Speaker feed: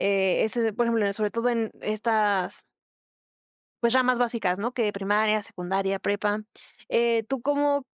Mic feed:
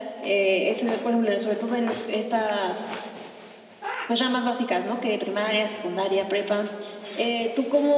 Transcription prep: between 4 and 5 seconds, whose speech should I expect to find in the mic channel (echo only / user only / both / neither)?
echo only